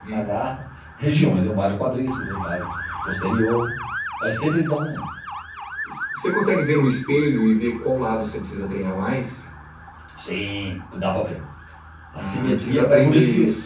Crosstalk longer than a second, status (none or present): present